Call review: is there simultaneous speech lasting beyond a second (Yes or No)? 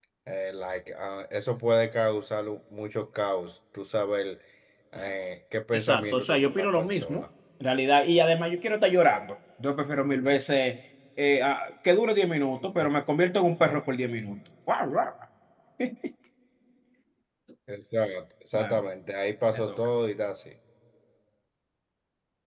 Yes